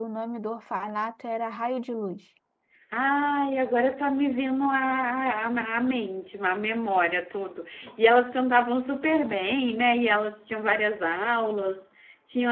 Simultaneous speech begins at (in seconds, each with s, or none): none